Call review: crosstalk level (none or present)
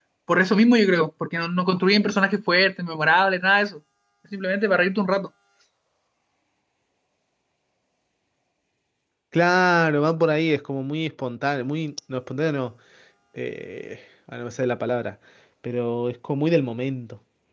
none